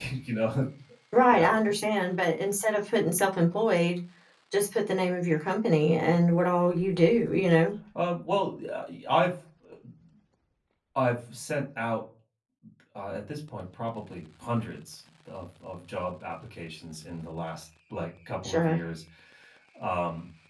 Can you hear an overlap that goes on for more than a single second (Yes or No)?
No